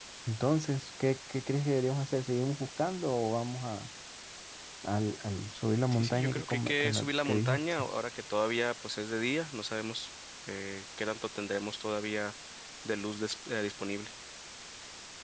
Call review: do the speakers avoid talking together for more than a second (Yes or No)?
No